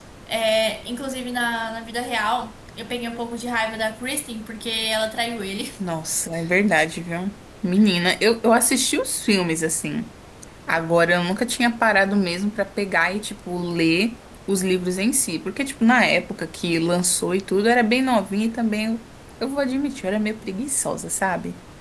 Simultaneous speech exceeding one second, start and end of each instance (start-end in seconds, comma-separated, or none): none